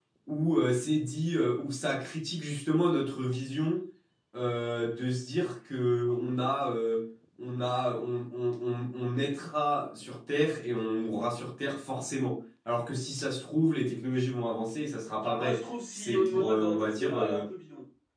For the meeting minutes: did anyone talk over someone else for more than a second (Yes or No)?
Yes